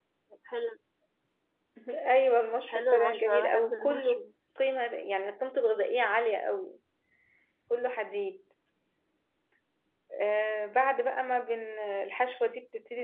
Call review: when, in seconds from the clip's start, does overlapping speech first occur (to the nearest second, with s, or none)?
3 s